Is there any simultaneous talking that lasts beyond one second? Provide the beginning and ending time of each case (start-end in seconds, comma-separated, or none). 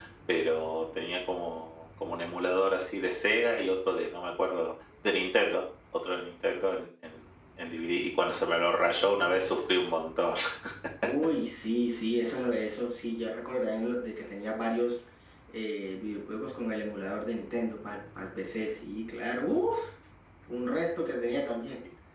none